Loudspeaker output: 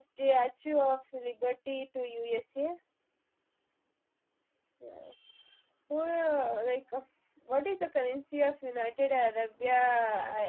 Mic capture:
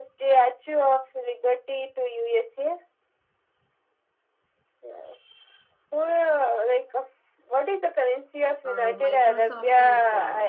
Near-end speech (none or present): present